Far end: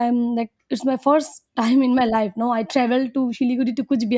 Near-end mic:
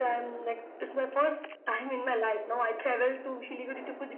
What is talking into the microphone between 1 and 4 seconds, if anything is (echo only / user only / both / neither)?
echo only